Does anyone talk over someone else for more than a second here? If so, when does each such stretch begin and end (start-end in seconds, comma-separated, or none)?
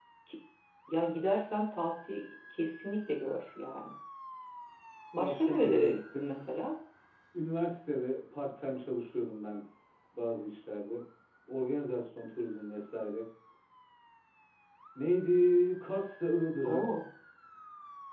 5.2-6.4